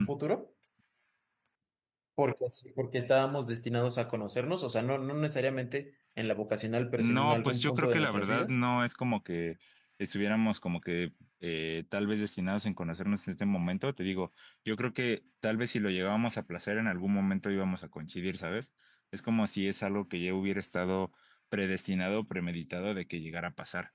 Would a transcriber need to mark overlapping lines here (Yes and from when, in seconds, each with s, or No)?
Yes, from 7.0 s